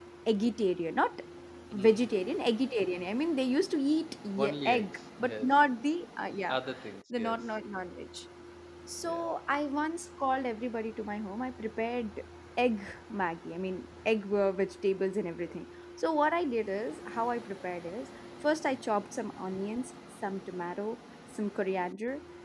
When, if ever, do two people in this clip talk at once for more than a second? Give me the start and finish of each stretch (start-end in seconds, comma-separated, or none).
4.4-5.6